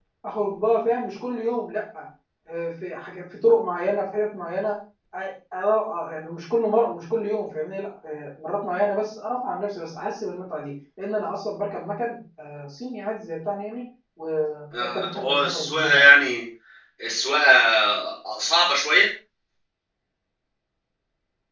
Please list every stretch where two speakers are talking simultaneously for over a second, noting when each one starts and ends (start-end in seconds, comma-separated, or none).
14.8-16.1